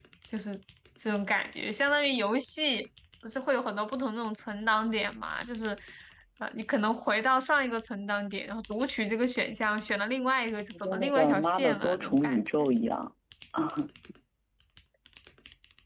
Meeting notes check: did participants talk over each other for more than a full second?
Yes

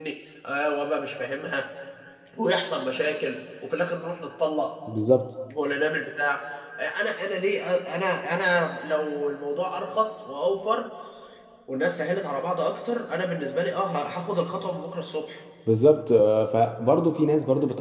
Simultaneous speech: No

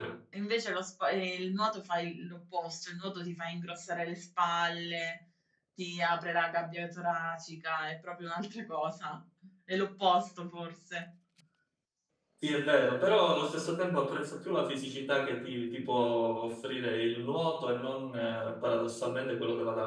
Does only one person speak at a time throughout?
Yes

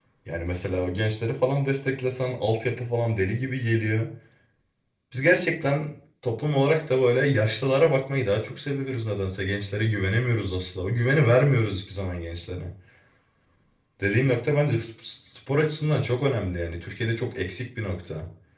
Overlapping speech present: No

